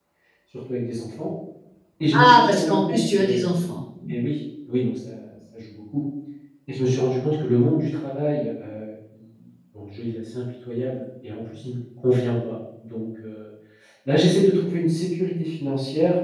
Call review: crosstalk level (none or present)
present